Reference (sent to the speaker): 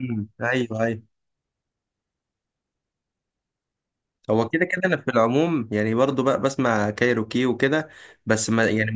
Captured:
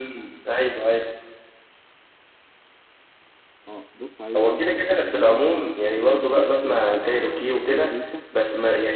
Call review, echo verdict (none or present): present